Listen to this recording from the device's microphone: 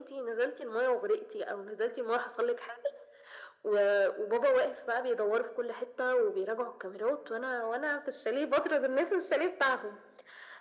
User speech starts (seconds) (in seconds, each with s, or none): none